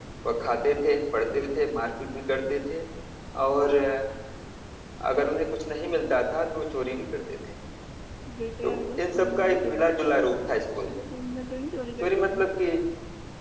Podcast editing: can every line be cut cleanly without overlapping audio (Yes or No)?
No